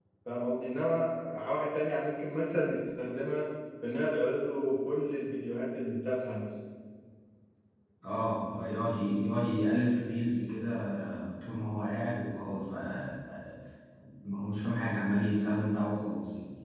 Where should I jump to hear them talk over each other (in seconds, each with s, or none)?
none